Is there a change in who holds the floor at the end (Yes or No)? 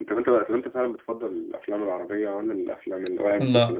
Yes